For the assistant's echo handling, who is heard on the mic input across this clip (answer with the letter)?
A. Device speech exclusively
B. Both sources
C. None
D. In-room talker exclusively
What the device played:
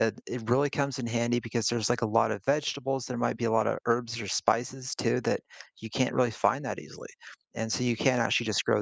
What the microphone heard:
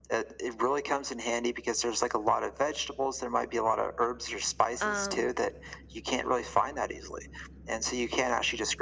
B